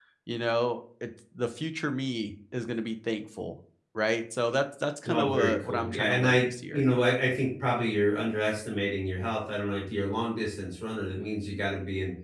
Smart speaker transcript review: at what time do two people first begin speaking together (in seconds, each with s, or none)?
5.0 s